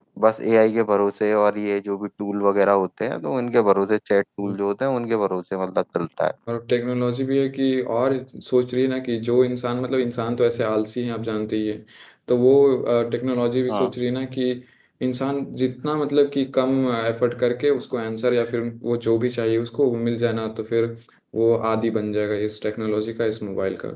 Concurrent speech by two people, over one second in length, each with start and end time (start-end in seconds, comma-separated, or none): none